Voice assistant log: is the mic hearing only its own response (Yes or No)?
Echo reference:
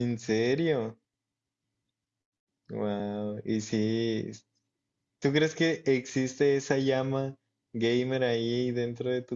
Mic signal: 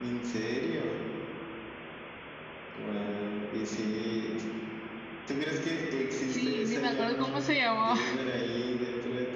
No